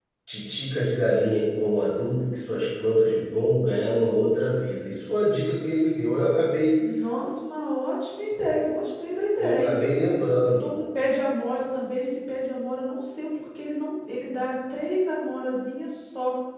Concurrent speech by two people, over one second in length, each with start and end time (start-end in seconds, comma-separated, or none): none